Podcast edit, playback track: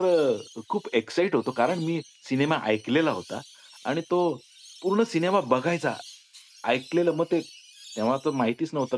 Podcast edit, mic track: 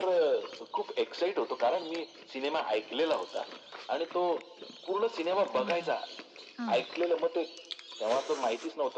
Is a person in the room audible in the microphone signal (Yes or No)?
Yes